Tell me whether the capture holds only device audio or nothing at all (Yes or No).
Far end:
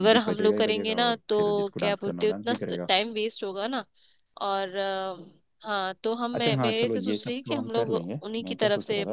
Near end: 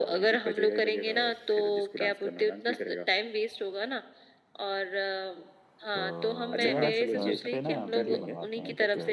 No